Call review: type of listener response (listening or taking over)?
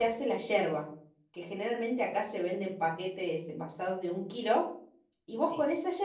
listening